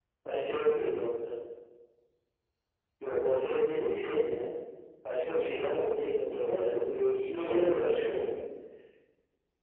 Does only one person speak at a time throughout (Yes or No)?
No